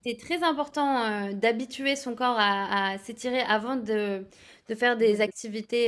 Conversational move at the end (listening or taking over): listening